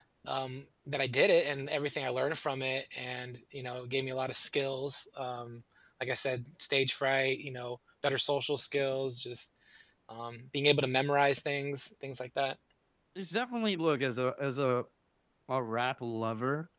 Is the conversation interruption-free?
Yes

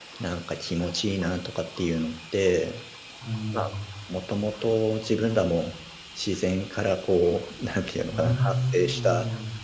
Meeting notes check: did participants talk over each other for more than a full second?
Yes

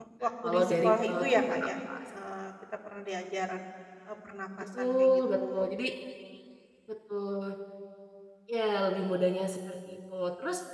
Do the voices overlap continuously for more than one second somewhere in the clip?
Yes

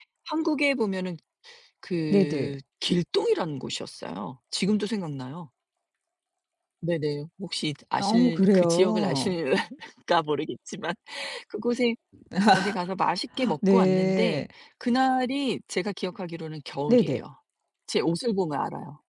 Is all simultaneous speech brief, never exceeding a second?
No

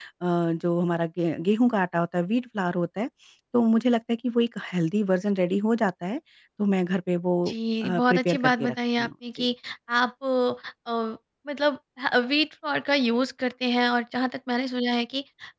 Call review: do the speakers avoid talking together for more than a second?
No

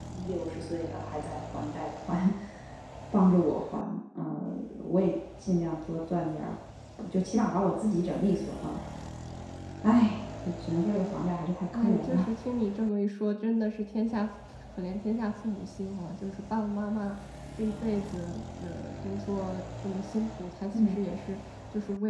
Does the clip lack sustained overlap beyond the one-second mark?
Yes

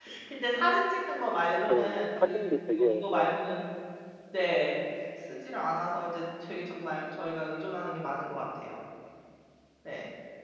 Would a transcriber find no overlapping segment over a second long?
No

